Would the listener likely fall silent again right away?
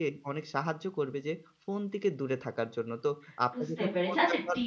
No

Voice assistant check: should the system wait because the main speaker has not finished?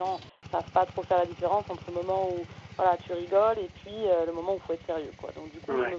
Yes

